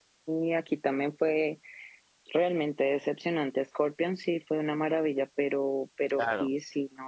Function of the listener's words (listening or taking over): listening